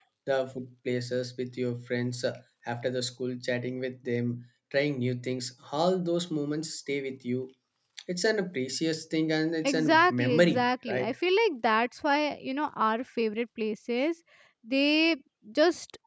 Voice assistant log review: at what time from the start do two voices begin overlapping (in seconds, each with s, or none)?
9.6 s